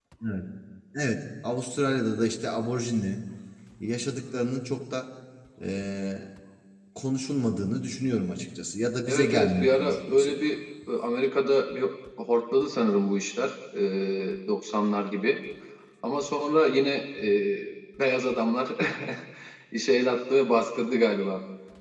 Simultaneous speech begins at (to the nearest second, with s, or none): 9 s